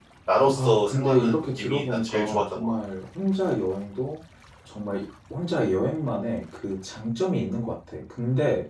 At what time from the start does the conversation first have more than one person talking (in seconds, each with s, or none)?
0.5 s